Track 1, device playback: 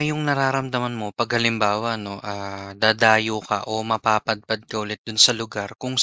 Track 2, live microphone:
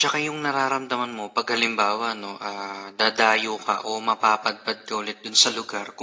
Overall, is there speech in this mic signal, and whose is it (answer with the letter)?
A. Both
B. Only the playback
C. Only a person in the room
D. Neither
B